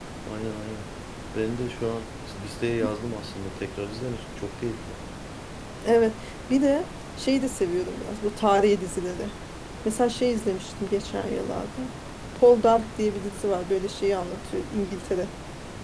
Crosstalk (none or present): none